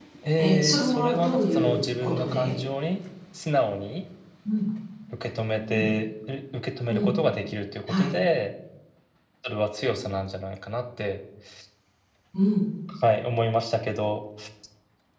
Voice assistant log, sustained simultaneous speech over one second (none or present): present